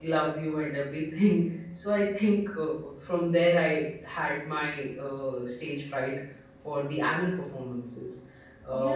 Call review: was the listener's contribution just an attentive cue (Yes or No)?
No